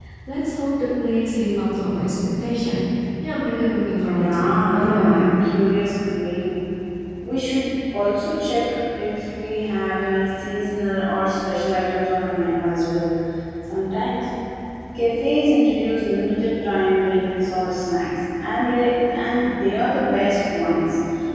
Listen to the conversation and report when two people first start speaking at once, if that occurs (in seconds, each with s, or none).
4.0 s